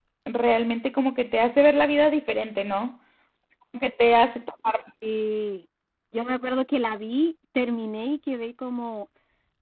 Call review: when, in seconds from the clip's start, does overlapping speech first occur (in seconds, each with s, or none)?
none